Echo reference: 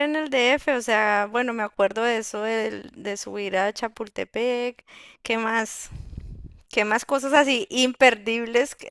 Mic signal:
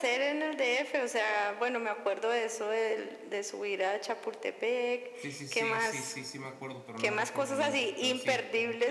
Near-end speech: present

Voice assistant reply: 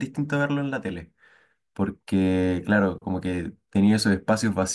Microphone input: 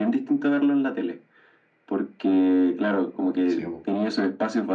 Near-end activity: present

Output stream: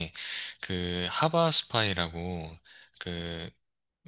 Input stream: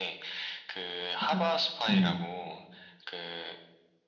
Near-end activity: present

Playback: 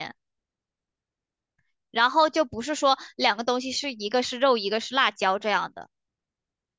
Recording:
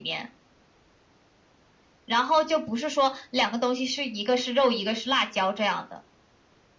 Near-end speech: none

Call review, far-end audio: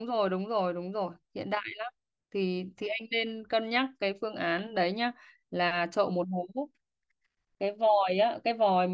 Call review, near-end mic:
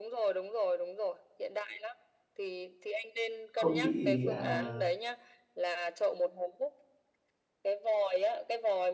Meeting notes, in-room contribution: present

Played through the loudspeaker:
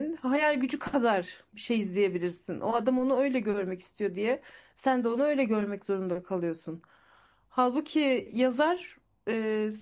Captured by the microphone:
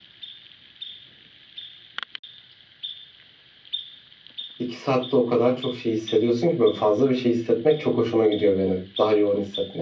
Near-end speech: present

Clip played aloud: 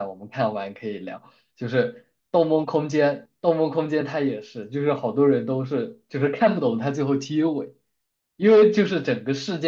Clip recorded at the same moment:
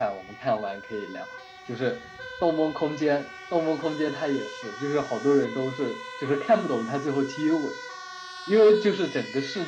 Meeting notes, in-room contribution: none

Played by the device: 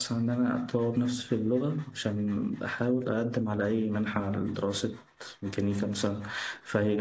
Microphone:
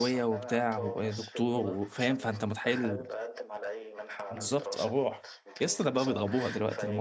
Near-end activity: present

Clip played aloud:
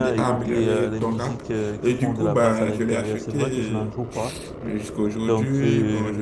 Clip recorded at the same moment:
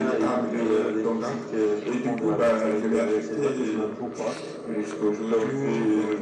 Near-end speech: none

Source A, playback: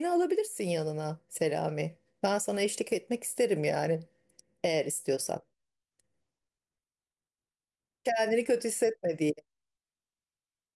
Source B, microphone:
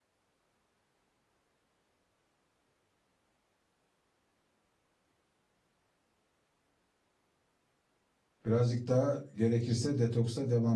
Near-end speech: present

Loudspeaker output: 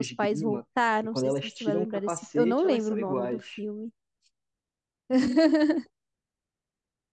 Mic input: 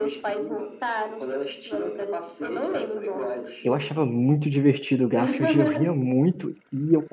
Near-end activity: present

